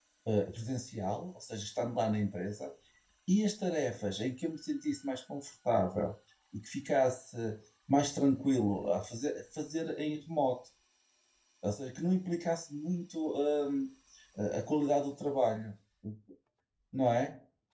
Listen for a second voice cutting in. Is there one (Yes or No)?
No